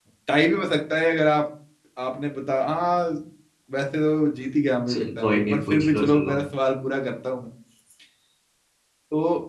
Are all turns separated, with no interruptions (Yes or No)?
No